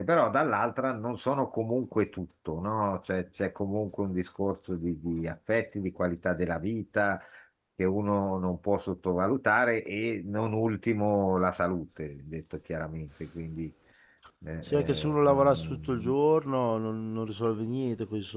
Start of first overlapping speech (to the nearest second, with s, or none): 15 s